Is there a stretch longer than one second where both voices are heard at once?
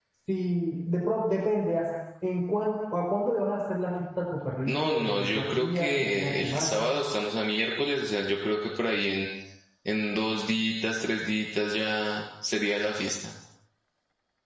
Yes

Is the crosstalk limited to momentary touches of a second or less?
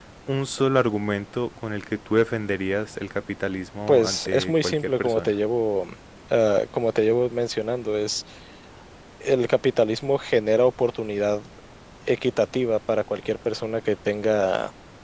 No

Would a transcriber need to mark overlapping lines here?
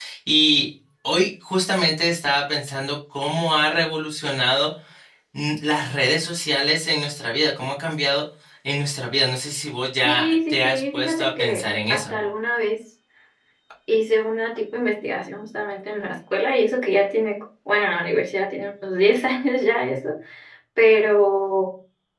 Yes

